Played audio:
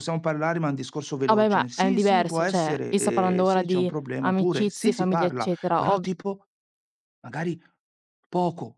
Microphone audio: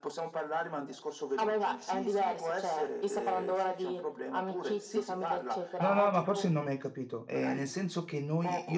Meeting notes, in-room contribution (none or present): present